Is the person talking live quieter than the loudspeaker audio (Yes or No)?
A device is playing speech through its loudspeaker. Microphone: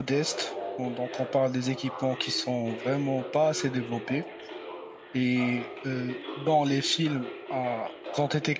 No